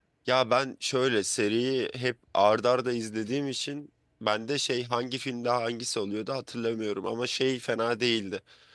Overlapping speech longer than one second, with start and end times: none

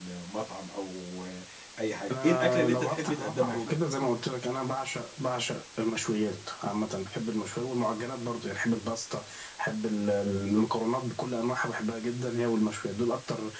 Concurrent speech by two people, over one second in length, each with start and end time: 2.1-3.8

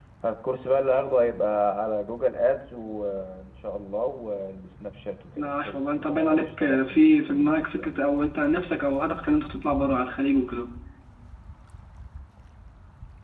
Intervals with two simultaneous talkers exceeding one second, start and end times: 5.4-7.9

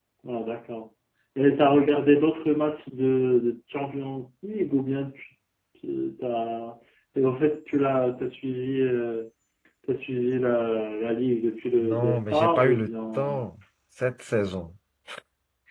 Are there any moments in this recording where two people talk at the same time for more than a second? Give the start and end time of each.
11.8-13.5

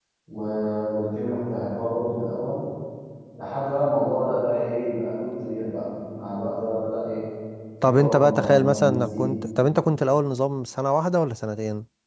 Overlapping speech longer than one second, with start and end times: 7.8-9.3

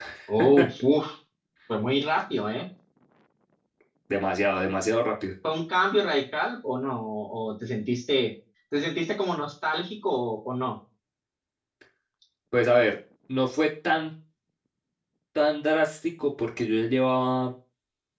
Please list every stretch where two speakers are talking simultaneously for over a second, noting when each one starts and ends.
none

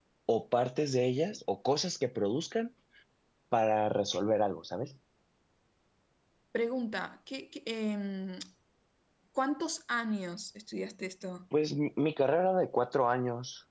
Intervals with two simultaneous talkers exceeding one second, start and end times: none

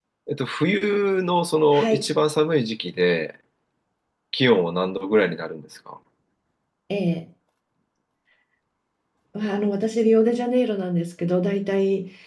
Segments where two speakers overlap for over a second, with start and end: none

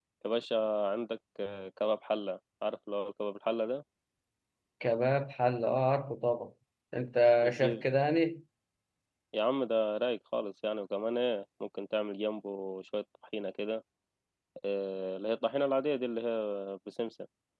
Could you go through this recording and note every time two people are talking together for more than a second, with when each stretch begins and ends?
none

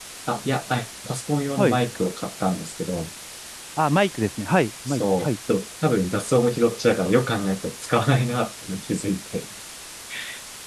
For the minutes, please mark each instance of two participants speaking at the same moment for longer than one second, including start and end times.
none

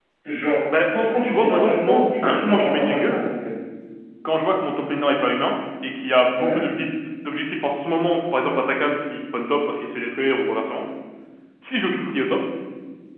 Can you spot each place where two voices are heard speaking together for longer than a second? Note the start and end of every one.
0.9-3.2

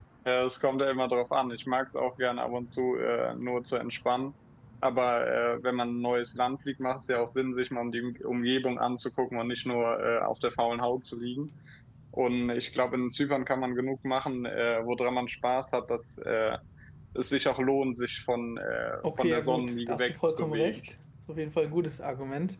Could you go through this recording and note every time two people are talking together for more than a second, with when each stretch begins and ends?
19.0-20.8

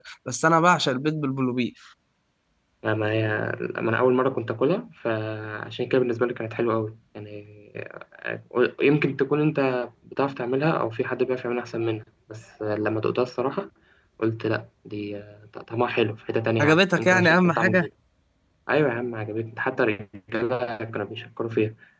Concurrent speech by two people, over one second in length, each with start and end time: 16.6-17.9

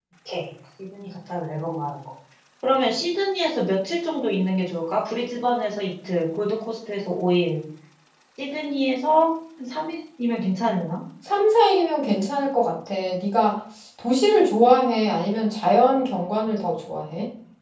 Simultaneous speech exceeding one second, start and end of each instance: none

